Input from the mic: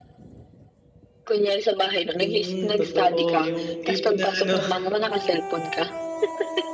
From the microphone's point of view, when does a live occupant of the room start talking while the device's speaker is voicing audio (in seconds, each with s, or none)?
2.2 s